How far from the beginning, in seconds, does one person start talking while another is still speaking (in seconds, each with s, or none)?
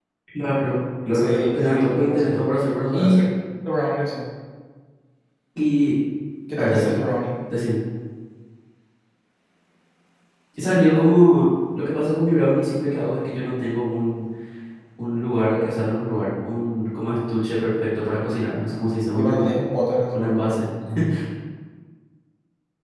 1.1 s